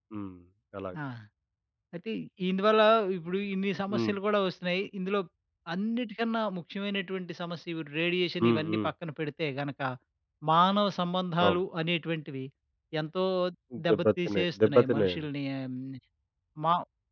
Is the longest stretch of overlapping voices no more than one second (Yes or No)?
No